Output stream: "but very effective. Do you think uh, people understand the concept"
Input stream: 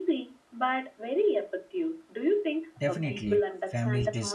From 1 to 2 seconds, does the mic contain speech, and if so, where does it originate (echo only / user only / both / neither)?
echo only